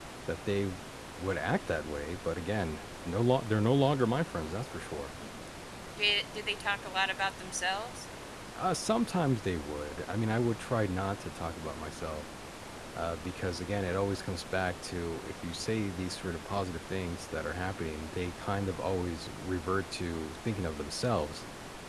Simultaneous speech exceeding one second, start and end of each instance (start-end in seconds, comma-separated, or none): none